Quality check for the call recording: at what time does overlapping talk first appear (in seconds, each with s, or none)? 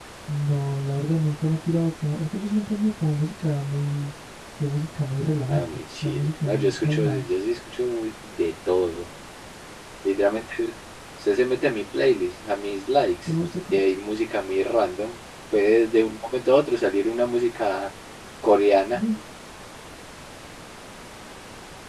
5.5 s